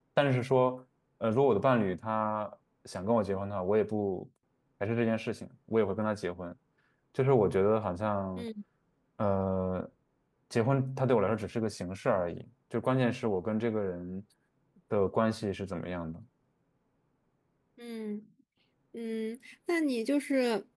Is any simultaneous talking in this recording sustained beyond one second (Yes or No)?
No